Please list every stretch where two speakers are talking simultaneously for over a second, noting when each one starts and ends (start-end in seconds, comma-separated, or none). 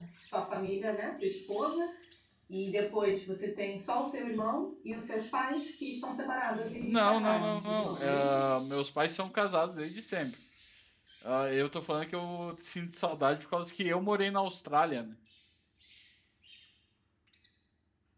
6.5-8.4